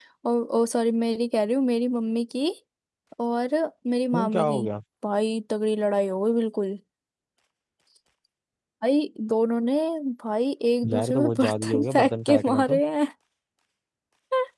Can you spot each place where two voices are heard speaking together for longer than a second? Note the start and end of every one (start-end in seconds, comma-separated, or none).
10.9-12.8